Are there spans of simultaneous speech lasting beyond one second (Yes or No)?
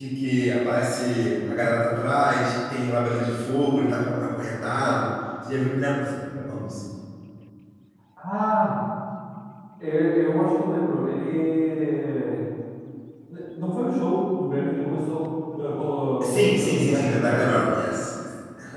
Yes